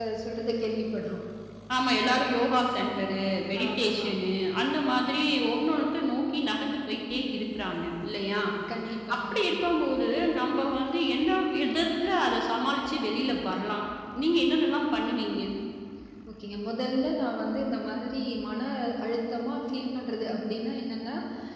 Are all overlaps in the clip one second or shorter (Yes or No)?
Yes